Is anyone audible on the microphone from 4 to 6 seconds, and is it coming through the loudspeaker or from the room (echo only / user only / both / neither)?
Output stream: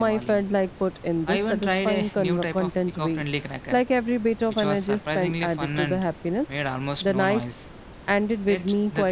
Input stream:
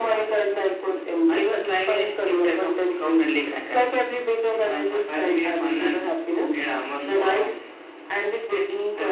echo only